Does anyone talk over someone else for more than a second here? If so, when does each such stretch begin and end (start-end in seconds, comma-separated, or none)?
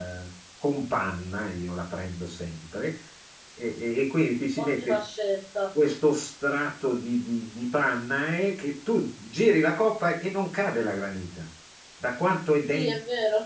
none